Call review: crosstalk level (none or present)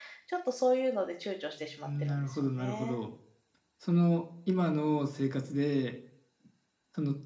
present